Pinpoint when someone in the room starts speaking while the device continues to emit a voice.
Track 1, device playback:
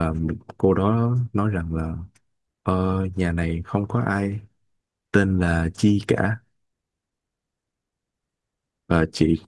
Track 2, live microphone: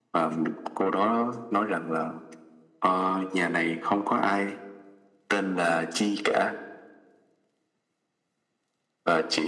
none

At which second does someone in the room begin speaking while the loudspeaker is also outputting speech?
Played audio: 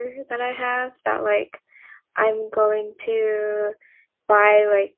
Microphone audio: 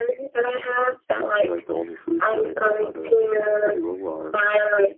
1.3 s

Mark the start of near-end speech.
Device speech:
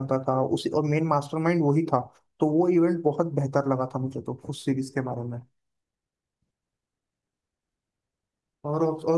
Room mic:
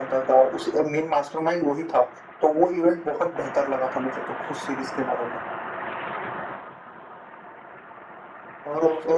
none

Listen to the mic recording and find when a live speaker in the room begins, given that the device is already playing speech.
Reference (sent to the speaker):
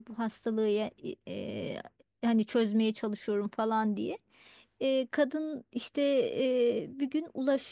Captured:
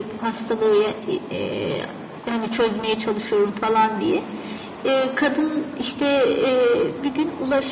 none

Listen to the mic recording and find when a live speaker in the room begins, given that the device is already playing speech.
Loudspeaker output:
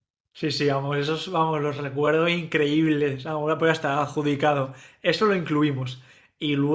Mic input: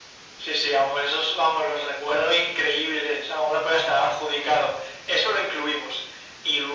none

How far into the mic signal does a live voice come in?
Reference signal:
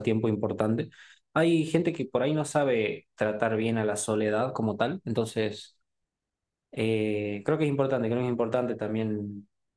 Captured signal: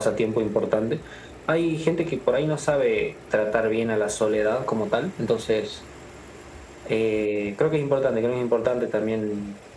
none

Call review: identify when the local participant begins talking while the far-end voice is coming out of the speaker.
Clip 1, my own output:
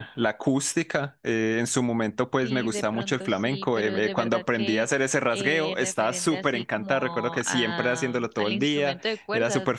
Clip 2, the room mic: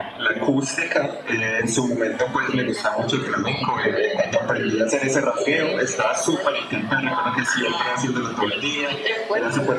none

